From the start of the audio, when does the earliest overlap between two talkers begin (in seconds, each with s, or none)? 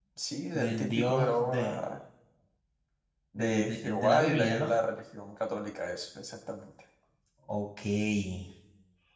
0.5 s